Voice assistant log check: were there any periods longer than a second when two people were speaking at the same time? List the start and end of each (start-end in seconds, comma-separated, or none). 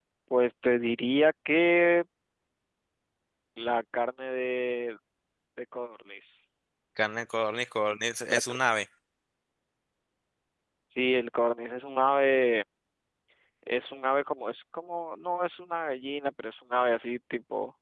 none